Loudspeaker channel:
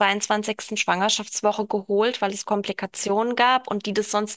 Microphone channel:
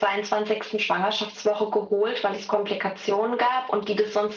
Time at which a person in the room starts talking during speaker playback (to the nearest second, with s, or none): none